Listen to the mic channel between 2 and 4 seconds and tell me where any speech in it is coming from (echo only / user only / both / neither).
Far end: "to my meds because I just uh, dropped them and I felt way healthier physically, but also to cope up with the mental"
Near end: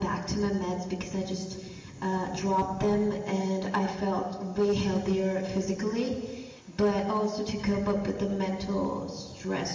echo only